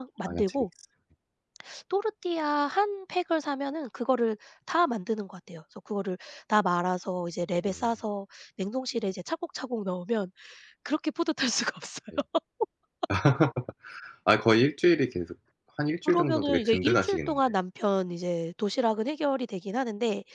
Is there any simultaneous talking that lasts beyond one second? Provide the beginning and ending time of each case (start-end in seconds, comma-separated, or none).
16.1-17.4